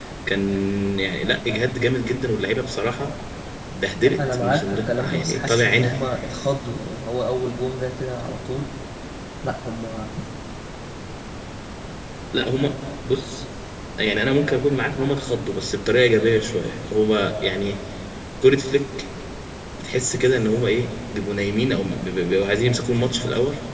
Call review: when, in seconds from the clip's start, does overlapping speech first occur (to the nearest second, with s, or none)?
4 s